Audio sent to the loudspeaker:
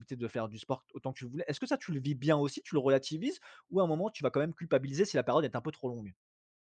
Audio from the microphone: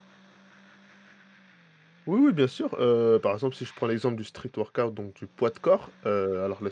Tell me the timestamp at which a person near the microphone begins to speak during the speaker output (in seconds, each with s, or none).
2.1 s